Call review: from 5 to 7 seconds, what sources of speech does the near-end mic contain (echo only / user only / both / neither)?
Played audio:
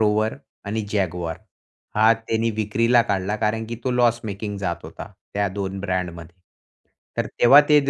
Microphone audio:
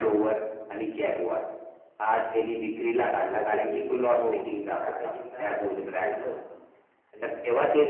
both